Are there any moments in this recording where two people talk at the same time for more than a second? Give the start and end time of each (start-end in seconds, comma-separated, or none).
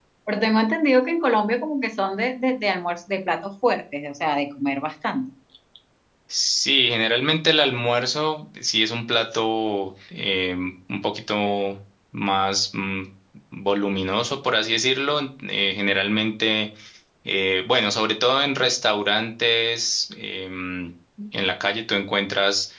none